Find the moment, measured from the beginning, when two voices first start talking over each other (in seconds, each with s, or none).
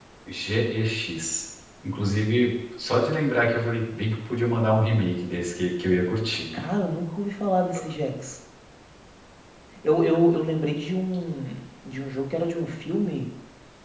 none